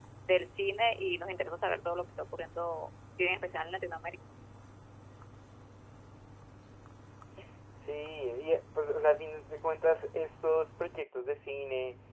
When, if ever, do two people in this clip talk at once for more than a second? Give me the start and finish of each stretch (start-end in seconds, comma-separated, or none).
none